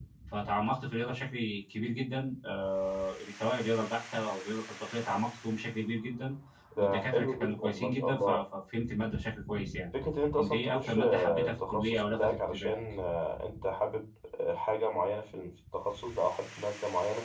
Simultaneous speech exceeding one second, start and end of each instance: 6.8-8.4, 10.4-12.8

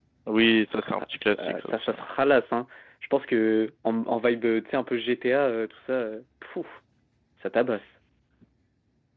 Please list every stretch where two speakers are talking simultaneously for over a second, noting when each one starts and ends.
0.8-2.0

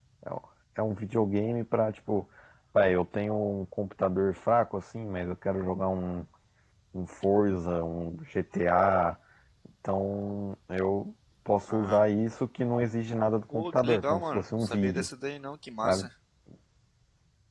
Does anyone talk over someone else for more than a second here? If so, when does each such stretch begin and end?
13.5-15.1

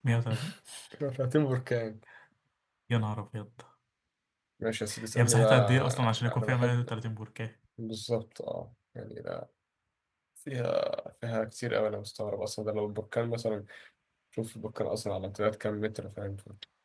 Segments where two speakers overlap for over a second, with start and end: 5.2-6.9

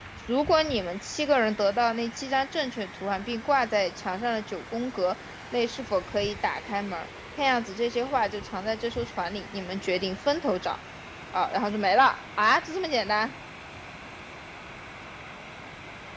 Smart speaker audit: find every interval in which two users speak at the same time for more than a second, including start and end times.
none

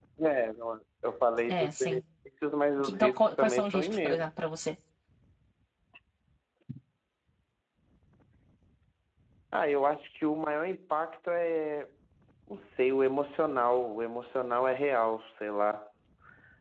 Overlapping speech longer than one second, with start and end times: 2.8-4.3

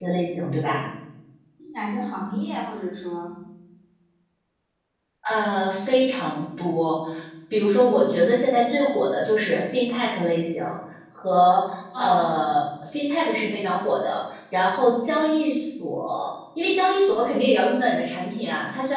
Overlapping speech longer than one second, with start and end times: none

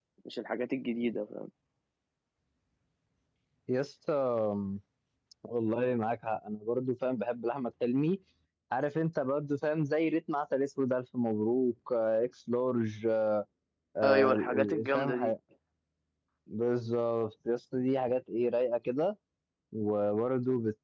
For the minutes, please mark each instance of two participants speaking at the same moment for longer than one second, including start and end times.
14.0-15.3

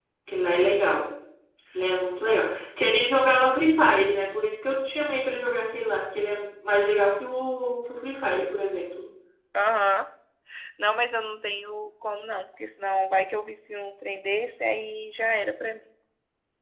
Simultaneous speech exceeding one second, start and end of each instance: none

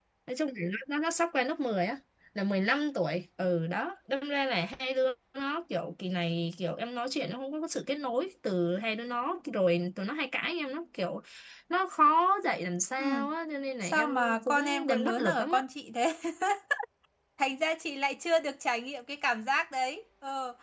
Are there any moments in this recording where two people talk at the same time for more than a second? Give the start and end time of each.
13.8-15.6

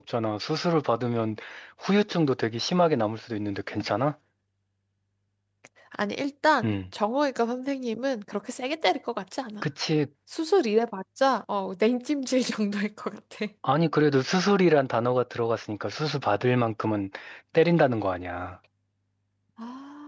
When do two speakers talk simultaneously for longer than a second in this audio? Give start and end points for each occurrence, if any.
none

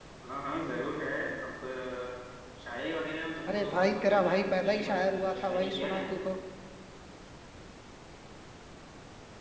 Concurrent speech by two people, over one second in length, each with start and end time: 3.5-6.1

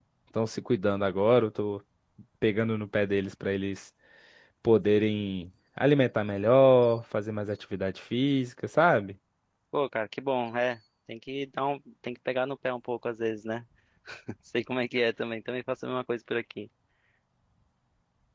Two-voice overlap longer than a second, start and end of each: none

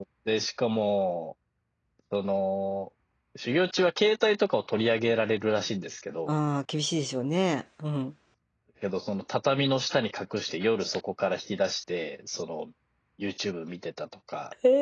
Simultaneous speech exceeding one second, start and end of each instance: none

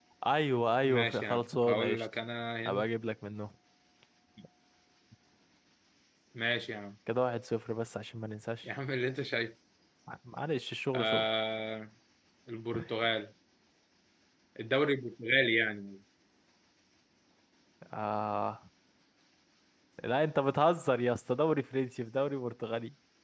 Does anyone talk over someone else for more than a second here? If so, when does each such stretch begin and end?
0.8-2.0

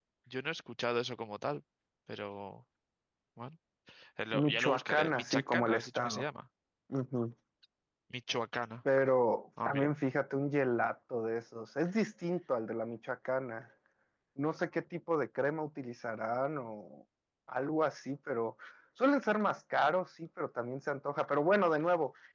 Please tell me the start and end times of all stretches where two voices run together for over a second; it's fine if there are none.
4.3-6.2

